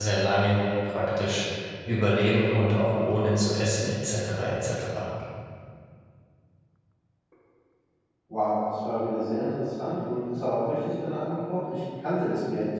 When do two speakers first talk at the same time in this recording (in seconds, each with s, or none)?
none